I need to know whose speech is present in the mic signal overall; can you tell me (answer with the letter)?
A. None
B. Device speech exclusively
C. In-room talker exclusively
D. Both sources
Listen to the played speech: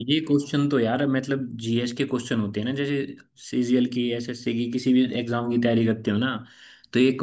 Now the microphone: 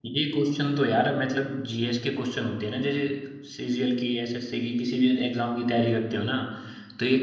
B